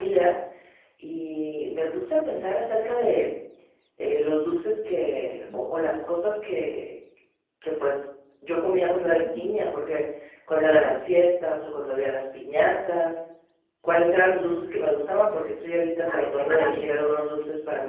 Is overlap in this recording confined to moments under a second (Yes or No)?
No